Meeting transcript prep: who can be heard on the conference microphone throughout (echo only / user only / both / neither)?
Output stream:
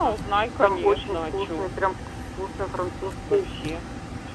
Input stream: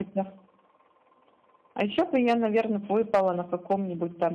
user only